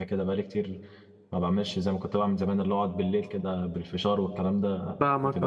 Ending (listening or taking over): taking over